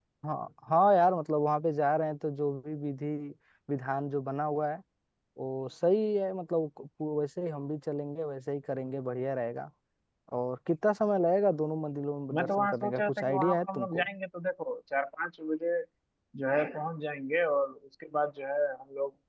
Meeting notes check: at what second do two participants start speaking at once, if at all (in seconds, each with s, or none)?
12.3 s